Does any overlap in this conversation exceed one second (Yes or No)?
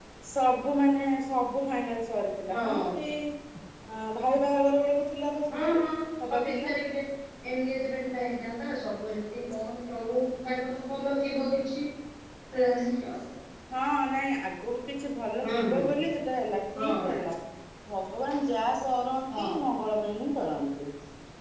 No